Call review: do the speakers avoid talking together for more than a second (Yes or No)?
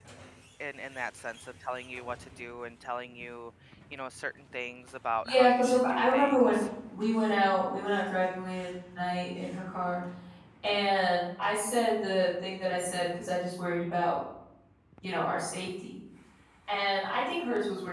No